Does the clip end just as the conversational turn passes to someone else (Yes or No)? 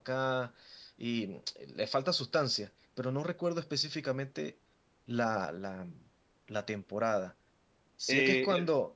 No